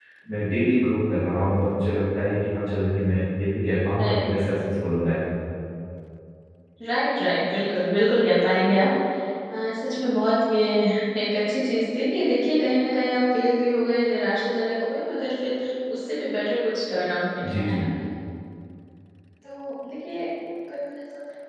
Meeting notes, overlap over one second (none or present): none